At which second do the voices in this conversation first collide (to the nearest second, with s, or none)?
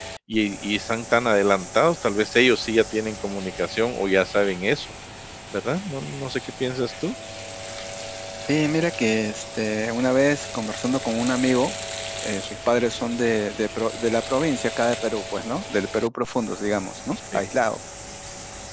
none